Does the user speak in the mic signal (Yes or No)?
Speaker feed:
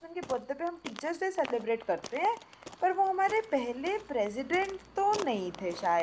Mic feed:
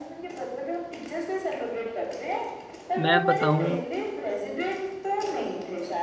Yes